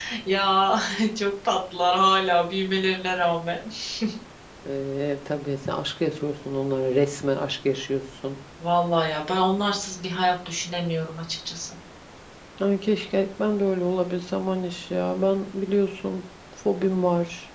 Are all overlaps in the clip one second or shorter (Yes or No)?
Yes